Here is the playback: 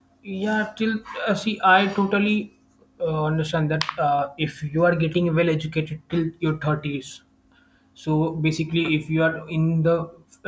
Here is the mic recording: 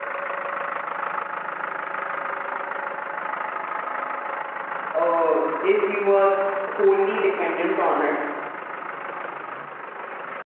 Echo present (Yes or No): No